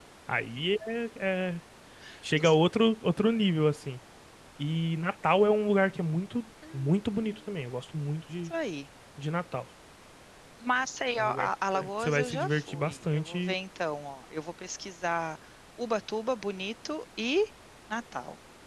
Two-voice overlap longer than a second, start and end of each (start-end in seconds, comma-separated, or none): 11.2-13.6